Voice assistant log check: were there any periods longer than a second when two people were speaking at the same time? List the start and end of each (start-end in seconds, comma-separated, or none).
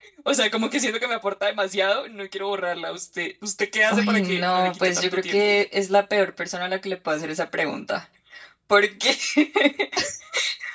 3.9-5.6